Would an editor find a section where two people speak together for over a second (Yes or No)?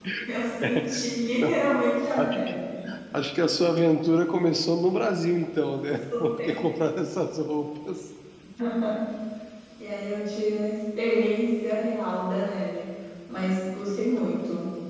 No